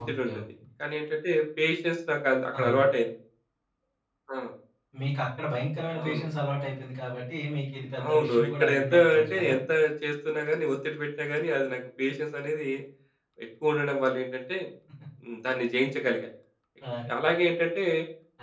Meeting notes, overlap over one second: present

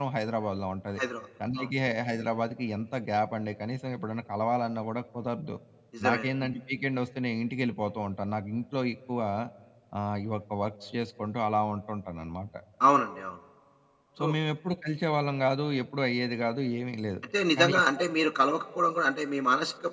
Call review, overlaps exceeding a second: none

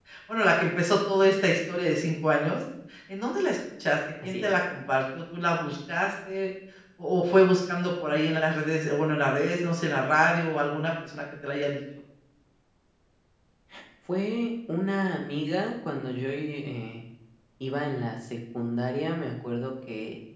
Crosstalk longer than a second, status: none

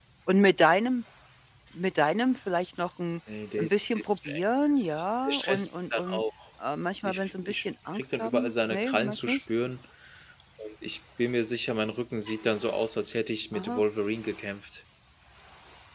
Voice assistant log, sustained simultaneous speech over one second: present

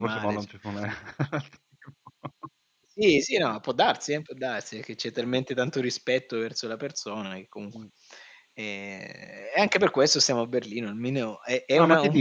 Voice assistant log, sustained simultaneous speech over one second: none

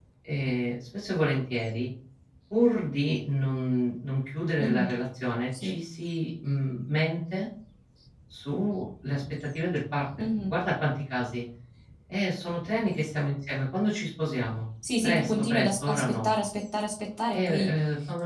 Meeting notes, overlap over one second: present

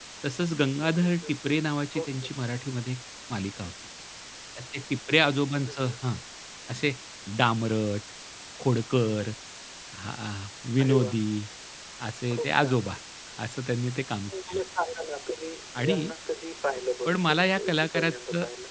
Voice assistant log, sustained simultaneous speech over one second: present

